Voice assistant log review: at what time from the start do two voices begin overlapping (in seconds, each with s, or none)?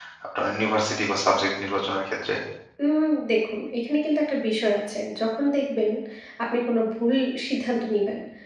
none